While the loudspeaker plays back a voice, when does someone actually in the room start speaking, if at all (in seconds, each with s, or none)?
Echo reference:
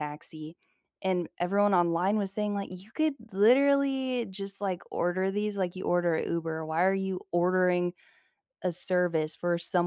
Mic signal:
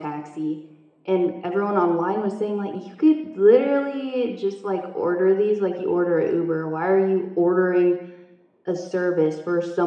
none